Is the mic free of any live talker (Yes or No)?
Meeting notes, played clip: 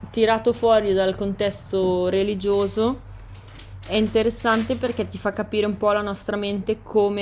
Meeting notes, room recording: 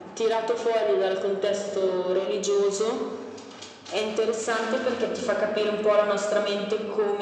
Yes